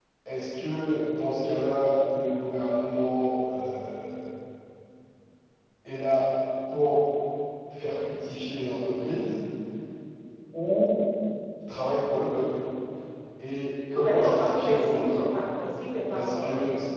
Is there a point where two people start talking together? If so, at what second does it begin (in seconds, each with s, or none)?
14.0 s